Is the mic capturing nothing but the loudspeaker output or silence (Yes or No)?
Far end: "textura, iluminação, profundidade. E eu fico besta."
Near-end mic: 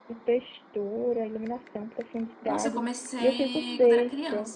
No